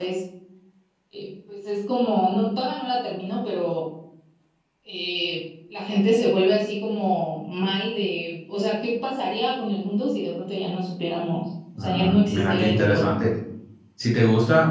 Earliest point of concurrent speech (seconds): 12 s

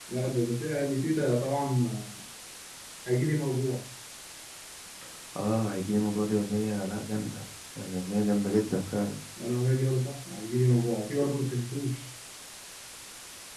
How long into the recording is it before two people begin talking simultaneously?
none

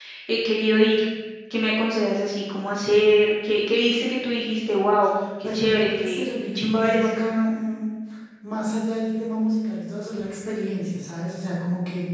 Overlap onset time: 5 s

